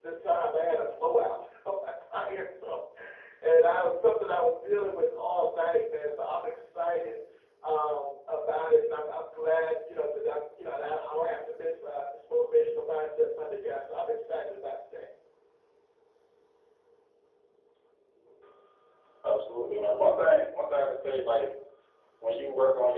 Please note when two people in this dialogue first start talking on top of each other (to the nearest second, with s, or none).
none